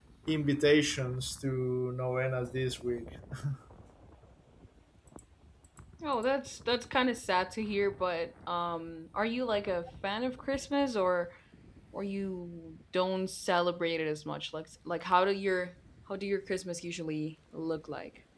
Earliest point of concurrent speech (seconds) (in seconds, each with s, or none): none